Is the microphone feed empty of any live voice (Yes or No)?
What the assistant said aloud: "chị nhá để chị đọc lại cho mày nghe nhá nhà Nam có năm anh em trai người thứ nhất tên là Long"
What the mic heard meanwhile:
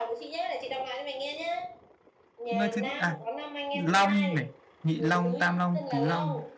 No